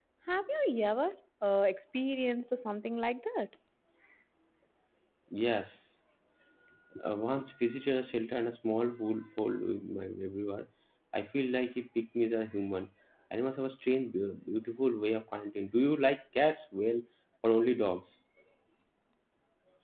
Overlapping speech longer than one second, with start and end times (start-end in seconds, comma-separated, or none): none